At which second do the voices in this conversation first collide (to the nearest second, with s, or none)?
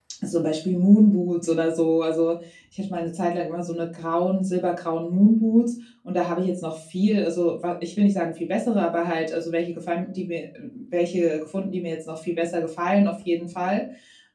none